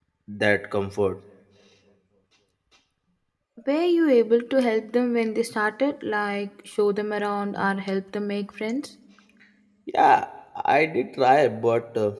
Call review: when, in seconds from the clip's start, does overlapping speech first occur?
none

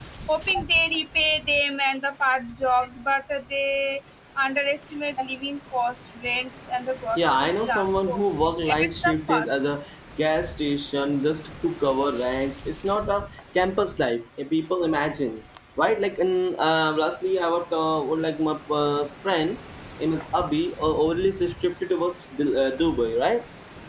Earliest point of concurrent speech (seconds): 7.2 s

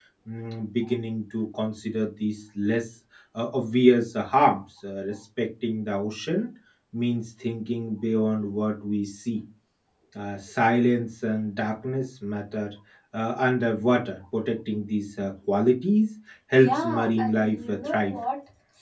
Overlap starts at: 16.5 s

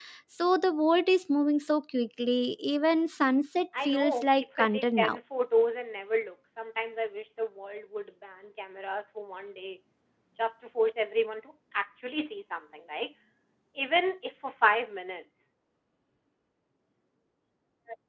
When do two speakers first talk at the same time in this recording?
3.7 s

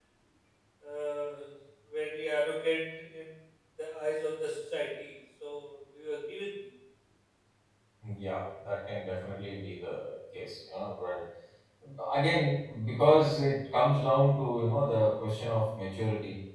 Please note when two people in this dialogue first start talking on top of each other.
none

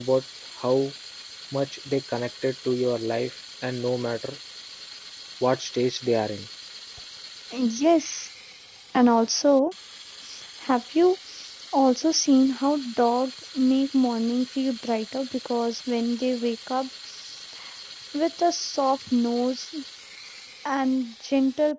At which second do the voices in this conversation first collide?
none

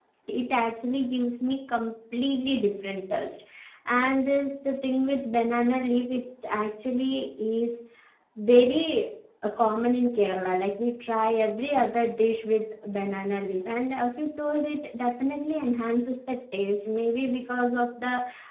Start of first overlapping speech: none

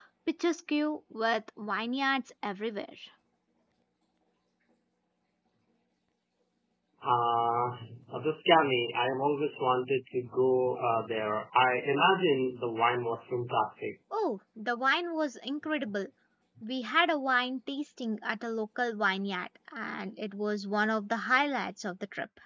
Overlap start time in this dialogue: none

